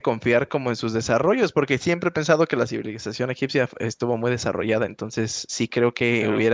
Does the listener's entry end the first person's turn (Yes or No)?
No